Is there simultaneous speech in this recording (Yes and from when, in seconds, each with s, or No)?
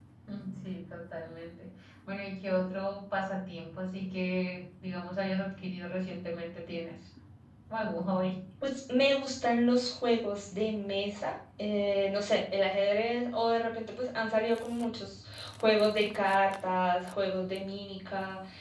No